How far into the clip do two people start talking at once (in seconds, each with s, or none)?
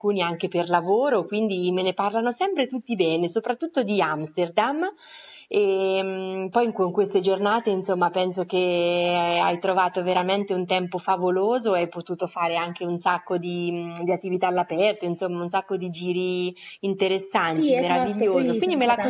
17.6 s